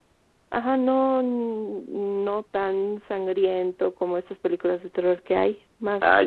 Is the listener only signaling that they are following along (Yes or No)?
No